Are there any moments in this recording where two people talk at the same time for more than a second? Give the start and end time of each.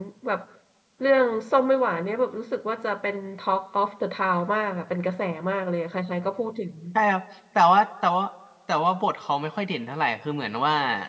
none

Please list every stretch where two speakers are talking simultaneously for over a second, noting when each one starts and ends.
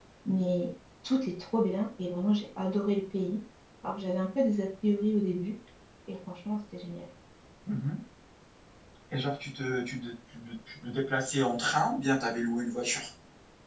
none

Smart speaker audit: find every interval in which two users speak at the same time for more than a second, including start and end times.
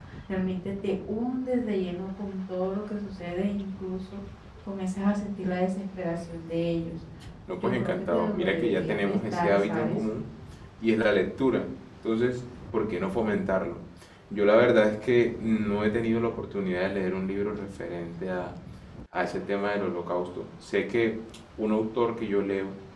7.6-10.0

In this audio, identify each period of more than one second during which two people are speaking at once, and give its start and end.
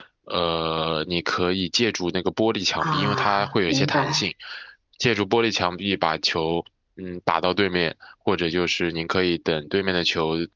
2.8-4.2

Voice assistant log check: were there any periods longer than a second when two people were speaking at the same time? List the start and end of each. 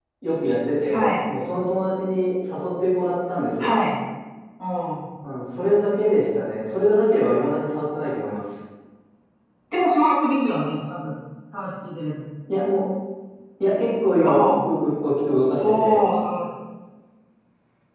none

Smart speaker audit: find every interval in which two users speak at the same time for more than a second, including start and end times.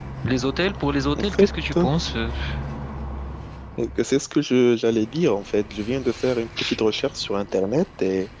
none

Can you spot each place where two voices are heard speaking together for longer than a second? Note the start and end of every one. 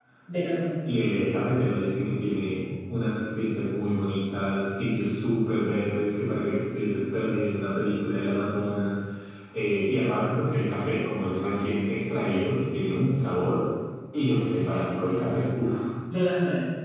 none

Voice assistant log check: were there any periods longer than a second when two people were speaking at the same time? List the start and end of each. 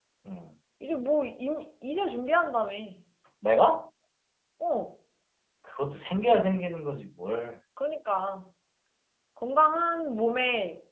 none

